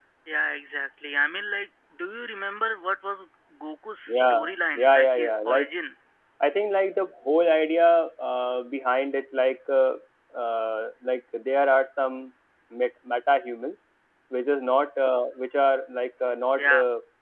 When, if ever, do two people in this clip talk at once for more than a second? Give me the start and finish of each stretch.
4.1-5.7

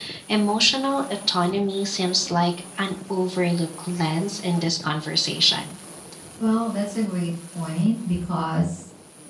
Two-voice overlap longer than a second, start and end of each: none

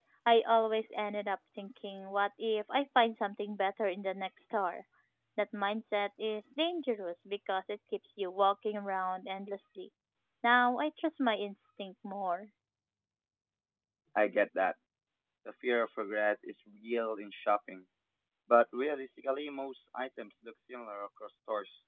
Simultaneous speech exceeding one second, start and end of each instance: none

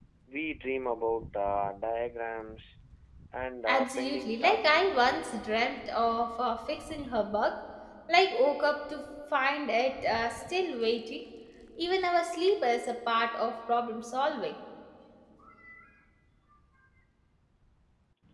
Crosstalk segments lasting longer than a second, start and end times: 3.7-4.9

